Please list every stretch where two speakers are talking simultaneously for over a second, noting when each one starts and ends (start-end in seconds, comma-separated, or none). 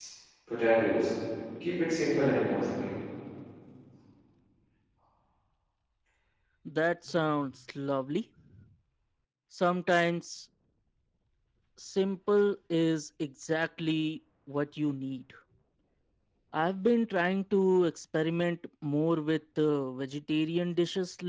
none